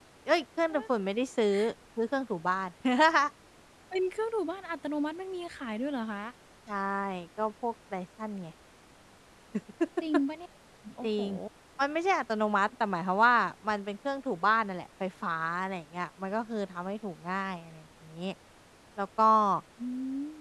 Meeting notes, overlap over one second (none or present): none